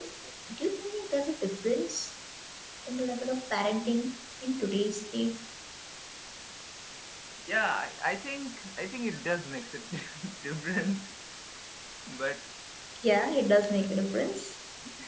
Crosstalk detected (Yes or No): No